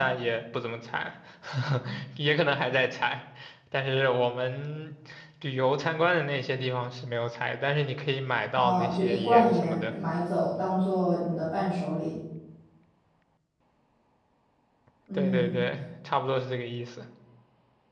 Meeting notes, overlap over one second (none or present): present